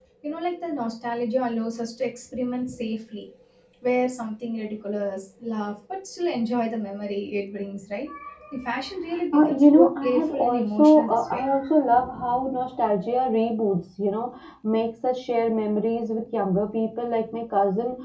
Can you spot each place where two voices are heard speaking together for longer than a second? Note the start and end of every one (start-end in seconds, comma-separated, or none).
9.3-11.4